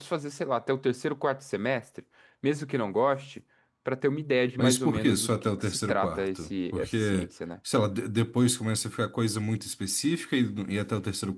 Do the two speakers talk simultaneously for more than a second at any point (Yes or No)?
Yes